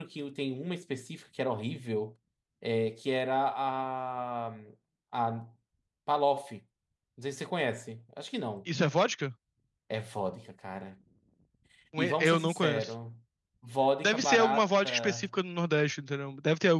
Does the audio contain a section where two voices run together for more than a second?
Yes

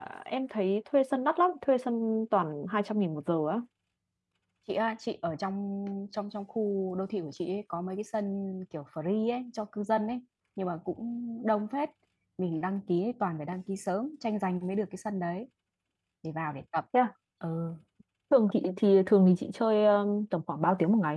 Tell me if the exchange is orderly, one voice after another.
Yes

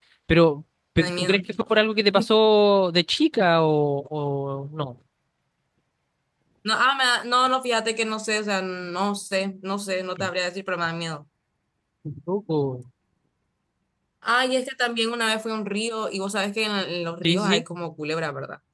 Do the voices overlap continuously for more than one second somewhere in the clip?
No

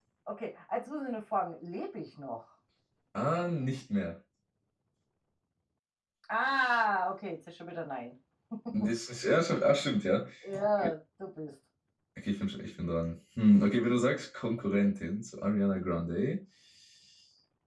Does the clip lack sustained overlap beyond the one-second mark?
Yes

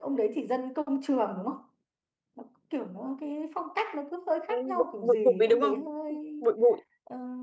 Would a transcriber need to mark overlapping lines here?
Yes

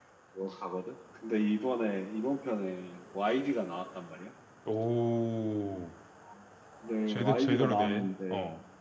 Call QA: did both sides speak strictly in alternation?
No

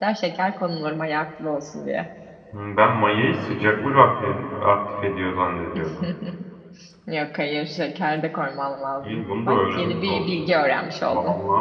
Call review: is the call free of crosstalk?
No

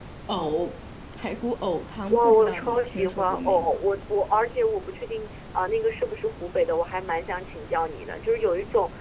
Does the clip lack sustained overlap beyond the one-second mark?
No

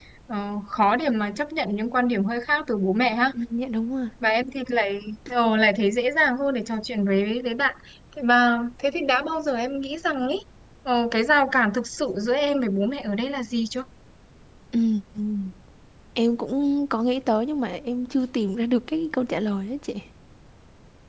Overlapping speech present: No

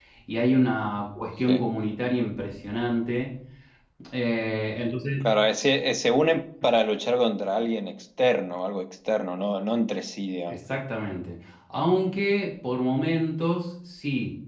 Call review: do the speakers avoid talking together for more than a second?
Yes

